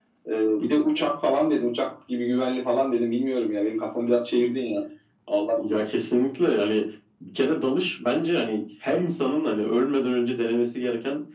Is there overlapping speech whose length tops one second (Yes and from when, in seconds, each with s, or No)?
No